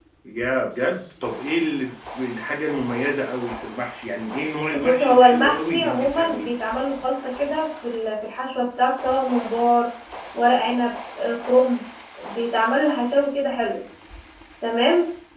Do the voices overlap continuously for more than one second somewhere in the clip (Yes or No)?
Yes